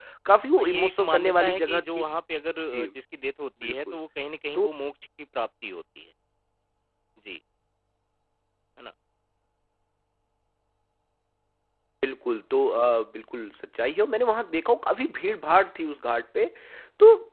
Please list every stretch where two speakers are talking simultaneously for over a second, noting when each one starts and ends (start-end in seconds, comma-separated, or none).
0.6-2.0